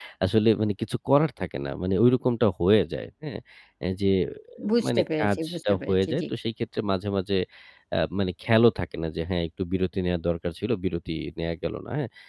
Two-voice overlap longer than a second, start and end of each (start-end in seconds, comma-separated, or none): 4.8-6.2